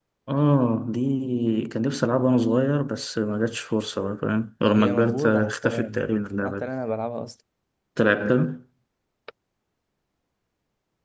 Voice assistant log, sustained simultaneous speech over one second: present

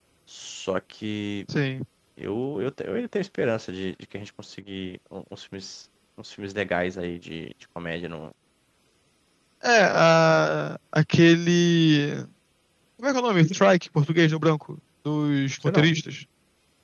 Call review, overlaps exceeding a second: none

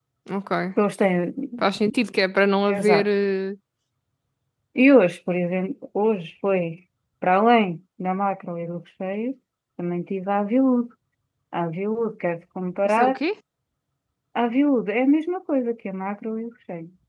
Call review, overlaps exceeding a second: none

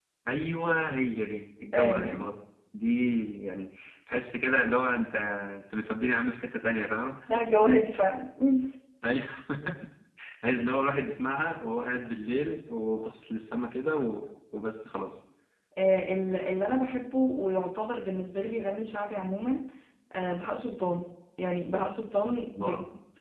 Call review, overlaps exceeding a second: none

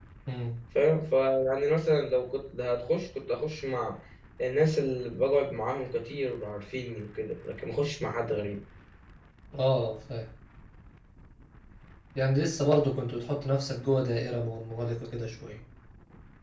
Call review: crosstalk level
none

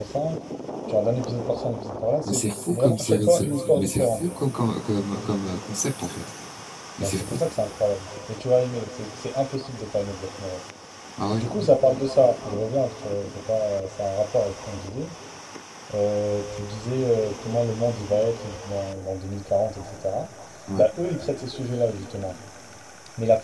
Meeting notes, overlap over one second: present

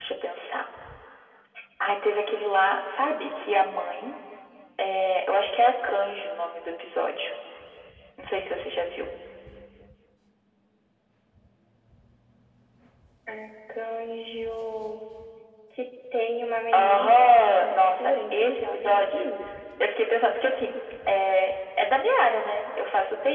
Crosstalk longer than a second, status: present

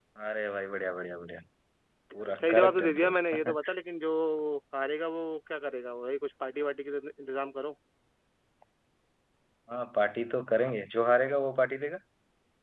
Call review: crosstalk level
present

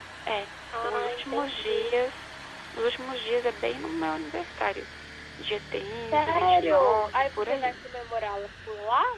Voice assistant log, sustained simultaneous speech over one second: present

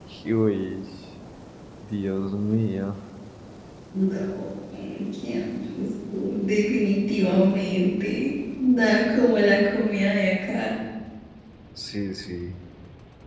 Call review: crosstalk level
none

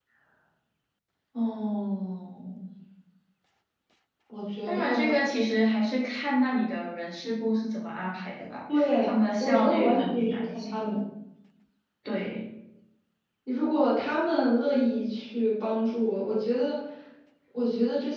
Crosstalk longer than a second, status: present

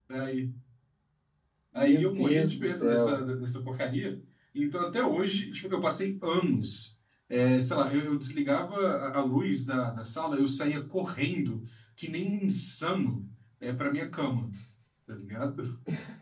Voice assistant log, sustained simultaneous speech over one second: present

